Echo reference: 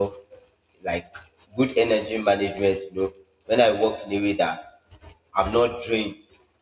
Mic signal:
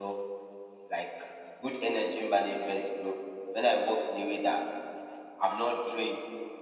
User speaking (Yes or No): No